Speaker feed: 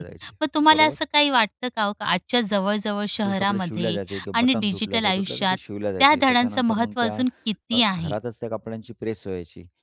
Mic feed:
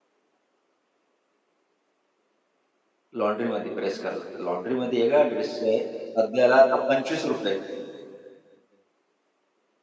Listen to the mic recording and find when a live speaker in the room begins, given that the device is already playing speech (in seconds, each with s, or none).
3.2 s